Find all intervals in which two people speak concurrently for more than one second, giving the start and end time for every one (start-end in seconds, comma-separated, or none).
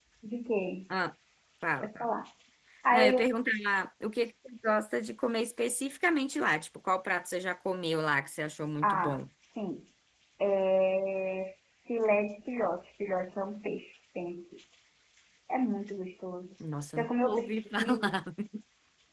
16.9-18.2